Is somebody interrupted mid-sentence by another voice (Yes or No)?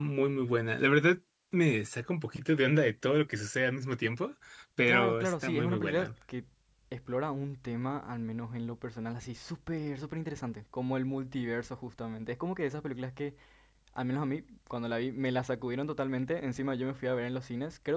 Yes